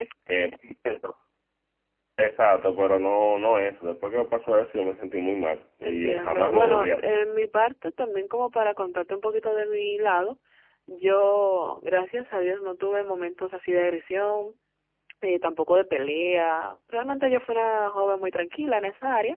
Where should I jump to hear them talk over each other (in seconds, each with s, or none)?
5.8 s